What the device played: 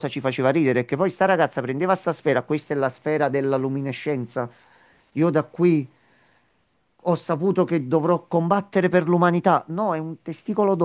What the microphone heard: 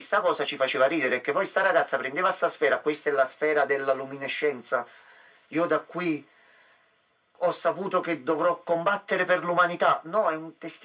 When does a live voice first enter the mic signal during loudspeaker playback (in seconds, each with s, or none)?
none